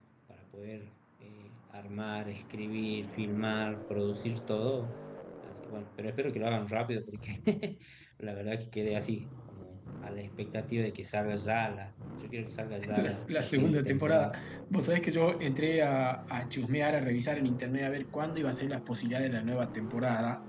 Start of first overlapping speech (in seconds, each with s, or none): 12.8 s